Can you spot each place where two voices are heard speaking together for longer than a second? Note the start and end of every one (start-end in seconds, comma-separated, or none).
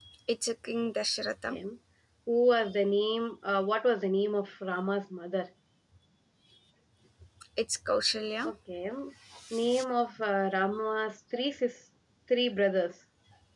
none